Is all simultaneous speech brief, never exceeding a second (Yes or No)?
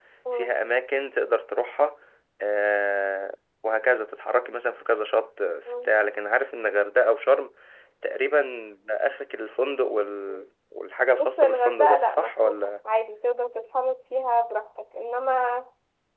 No